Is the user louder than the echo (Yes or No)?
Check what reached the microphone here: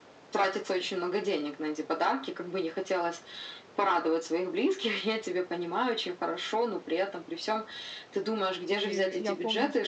No